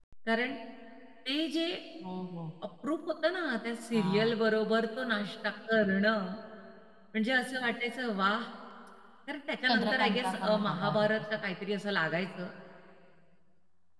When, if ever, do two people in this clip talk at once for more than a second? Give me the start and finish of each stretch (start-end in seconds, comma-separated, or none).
9.7-11.1